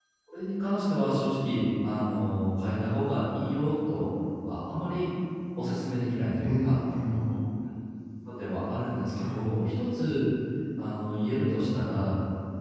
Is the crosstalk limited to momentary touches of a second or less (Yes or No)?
Yes